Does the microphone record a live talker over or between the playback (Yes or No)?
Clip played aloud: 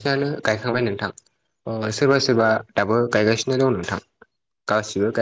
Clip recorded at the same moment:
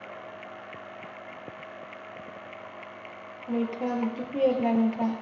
Yes